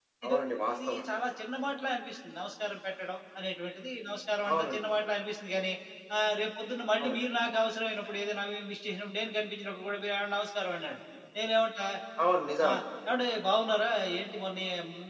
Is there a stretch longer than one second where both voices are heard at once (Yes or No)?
No